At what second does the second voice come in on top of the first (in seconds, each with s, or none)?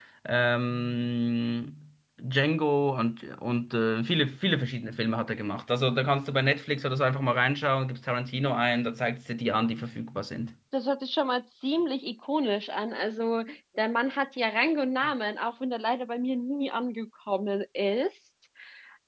none